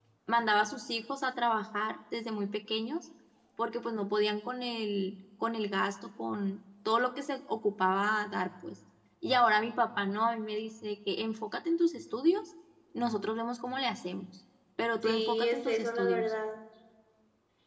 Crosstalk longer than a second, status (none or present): present